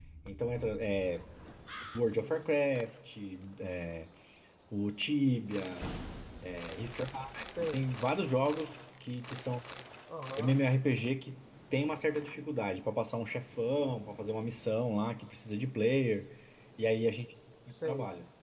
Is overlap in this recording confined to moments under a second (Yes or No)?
Yes